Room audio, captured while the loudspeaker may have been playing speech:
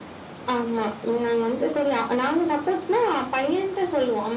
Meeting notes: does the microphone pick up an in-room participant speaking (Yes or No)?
No